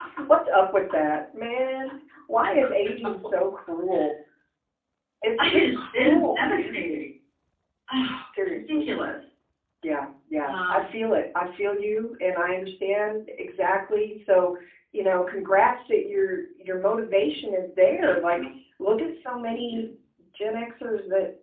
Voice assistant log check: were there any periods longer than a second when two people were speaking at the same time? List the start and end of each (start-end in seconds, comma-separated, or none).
5.4-6.8